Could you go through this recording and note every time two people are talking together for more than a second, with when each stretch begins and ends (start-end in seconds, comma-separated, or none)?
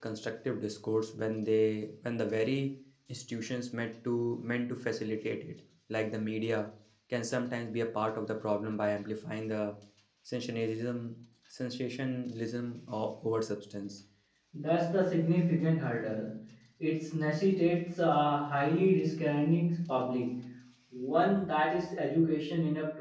none